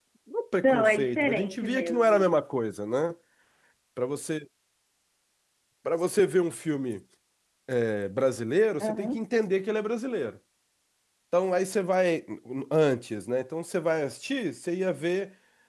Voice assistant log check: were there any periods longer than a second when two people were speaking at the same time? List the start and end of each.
0.6-2.3

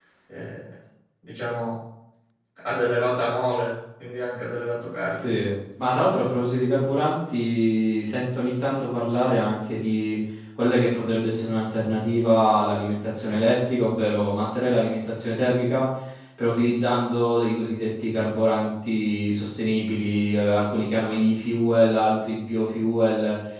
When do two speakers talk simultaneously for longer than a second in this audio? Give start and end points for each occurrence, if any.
none

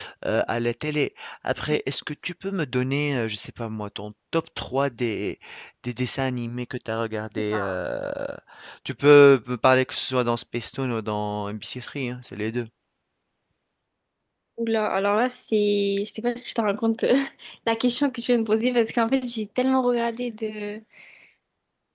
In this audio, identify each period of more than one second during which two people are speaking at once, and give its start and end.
none

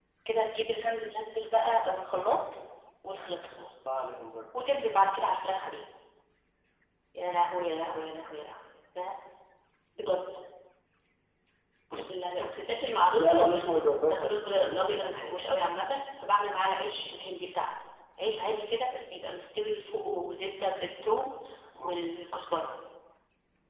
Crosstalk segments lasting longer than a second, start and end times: 14.0-15.5

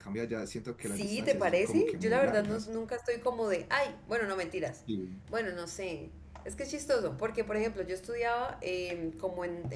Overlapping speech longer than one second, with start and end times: 0.8-2.7

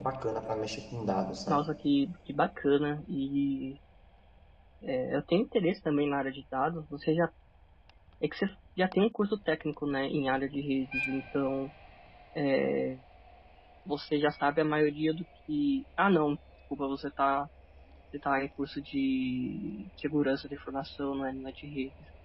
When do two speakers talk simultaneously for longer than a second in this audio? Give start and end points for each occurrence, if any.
none

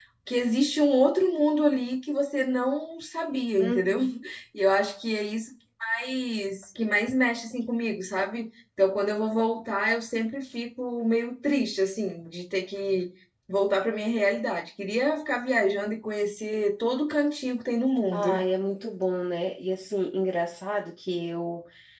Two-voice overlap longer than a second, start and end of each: none

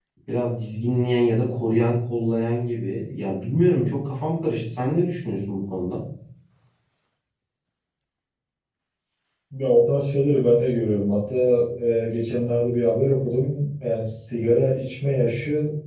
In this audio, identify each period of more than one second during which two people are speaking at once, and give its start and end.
none

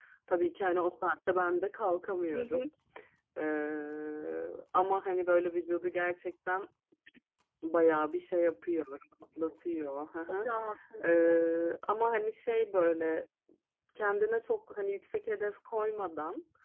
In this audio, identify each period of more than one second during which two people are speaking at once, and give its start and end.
none

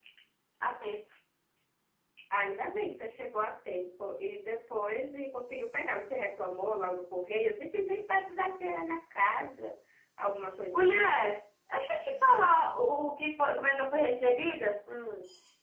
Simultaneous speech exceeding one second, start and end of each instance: none

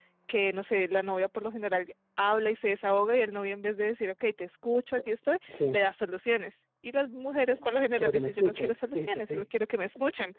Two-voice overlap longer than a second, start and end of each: 8.0-9.4

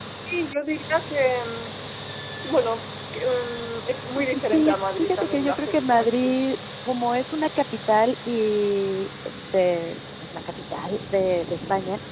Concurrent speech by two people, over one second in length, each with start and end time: 4.2-6.4

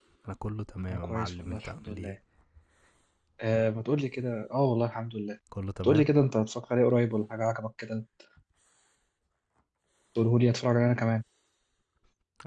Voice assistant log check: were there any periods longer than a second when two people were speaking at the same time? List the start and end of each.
0.9-2.1

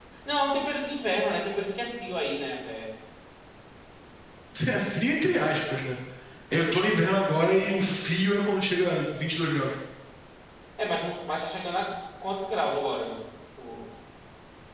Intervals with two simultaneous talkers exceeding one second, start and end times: none

